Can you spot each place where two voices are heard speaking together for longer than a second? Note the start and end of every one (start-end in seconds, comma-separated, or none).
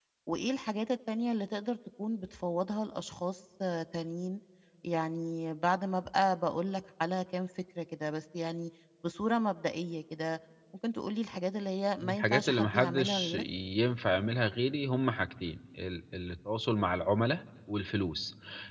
12.0-13.4